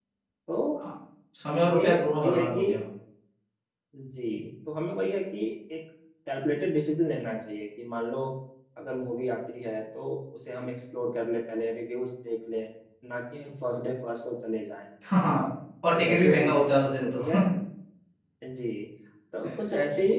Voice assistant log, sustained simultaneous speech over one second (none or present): present